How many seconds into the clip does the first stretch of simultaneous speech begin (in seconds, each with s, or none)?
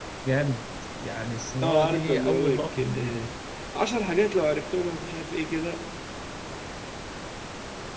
1.6 s